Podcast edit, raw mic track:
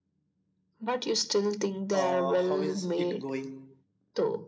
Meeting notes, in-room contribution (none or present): present